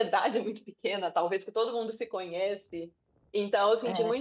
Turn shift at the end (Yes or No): No